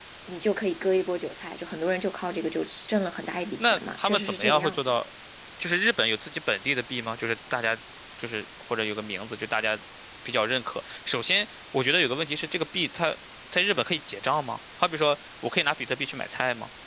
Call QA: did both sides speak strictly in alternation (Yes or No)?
No